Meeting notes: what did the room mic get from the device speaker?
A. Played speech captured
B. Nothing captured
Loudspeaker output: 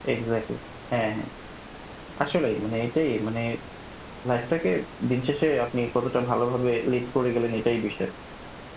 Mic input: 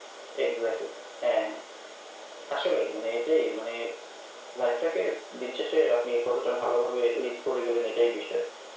A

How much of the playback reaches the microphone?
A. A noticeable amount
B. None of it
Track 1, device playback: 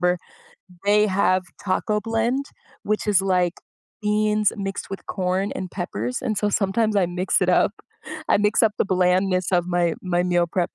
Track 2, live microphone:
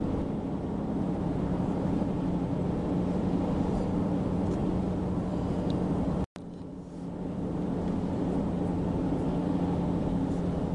B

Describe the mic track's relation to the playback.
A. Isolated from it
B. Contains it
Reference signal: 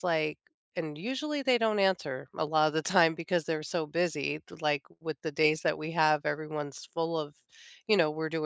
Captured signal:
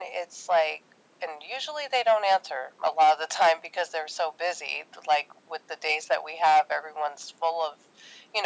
B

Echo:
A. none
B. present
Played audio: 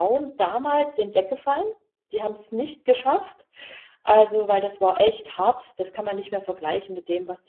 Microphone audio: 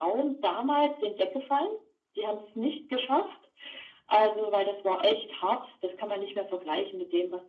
B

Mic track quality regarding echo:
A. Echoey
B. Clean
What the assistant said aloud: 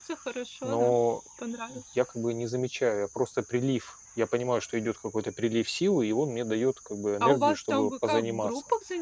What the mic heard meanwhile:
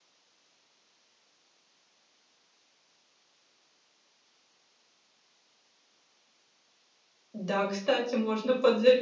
B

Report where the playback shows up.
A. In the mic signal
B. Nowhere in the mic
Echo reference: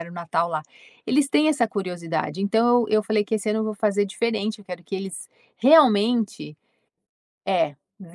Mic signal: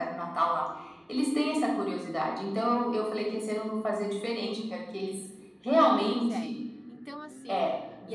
A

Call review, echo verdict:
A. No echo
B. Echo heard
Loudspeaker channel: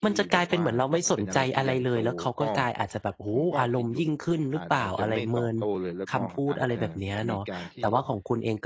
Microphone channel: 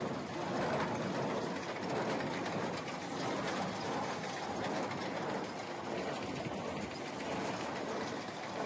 A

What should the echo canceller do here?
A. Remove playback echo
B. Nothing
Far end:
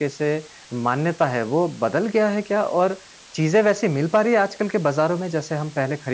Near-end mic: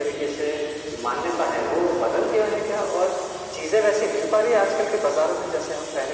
A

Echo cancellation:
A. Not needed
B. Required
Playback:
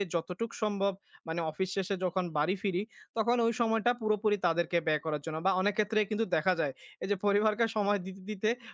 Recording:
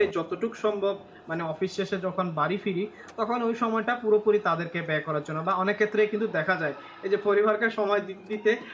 B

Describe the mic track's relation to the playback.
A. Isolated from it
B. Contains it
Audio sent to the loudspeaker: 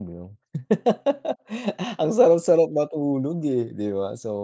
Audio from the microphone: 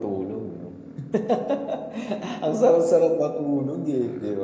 B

